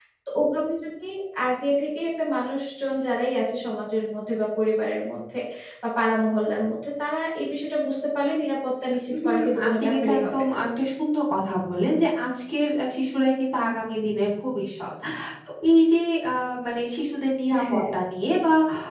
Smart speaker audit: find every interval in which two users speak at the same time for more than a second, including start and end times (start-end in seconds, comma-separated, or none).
9.2-10.5